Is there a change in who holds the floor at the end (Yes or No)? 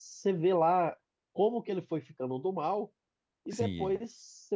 No